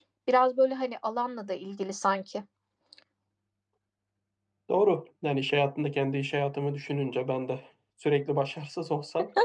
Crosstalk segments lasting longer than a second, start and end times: none

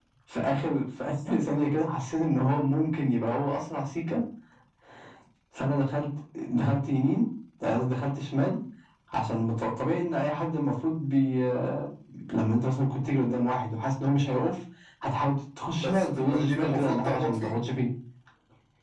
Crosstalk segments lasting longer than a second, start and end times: 15.7-17.5

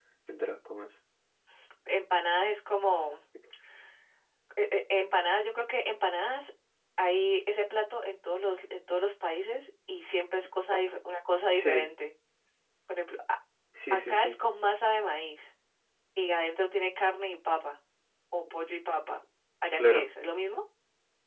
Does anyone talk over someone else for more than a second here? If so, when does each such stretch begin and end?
none

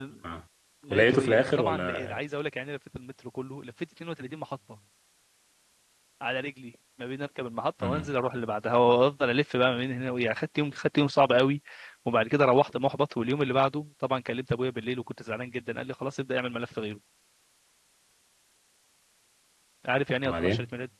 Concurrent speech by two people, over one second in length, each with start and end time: 0.9-2.2

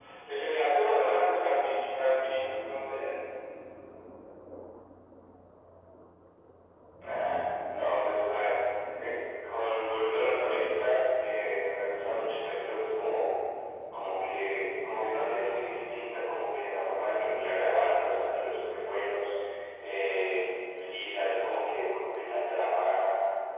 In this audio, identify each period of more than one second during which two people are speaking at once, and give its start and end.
none

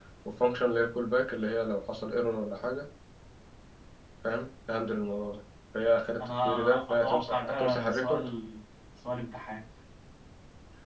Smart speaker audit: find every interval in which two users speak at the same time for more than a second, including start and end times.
6.2-8.3

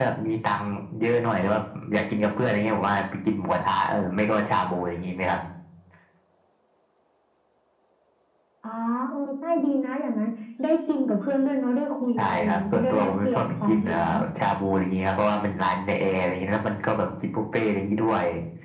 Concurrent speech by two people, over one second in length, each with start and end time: 12.2-14.0

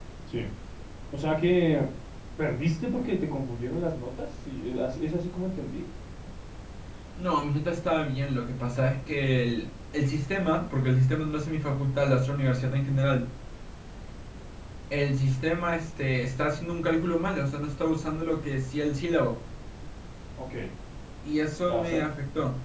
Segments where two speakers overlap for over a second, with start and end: none

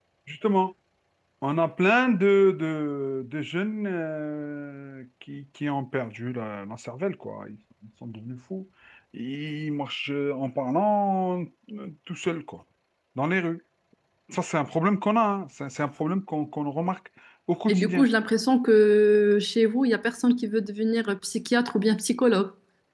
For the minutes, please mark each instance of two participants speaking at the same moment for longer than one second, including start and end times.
none

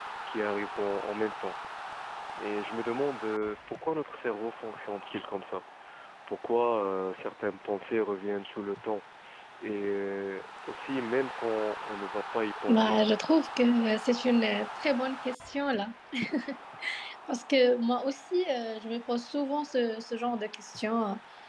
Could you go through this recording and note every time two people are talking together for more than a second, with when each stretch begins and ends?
none

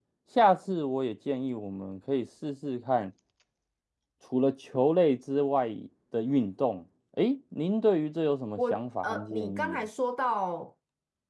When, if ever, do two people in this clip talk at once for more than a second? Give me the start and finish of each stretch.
8.6-9.9

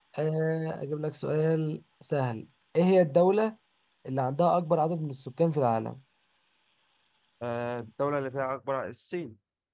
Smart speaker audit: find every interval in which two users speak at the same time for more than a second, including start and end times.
none

